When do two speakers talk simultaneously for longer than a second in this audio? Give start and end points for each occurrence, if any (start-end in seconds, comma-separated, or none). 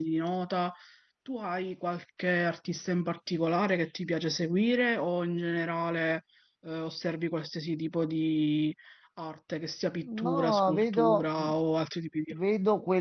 10.0-11.2